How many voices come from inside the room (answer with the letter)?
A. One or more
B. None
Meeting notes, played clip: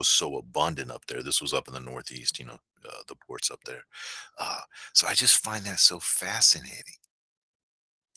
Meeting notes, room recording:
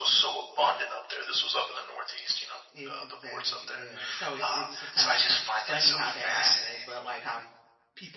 A